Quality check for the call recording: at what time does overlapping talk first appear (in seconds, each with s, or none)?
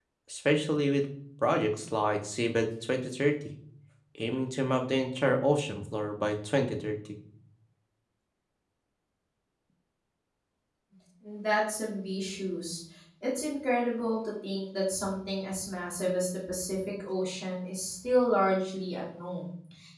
none